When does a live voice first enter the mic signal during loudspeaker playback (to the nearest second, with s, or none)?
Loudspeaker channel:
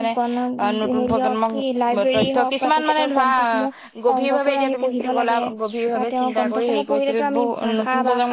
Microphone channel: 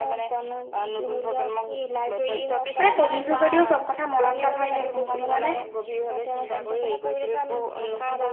3 s